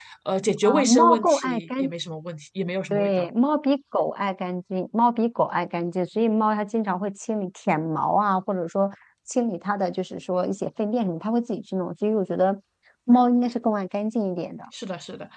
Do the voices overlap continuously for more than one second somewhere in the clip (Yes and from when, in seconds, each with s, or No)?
Yes, from 0.6 s